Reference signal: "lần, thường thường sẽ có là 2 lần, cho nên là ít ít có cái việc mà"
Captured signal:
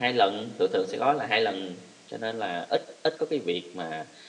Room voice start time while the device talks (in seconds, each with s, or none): none